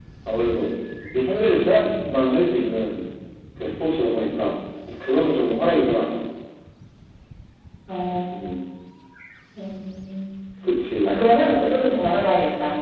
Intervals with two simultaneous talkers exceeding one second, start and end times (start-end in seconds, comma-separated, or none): none